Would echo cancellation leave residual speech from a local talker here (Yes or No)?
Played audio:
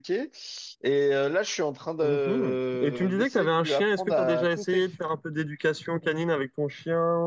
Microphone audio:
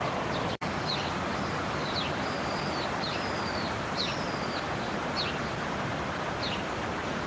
No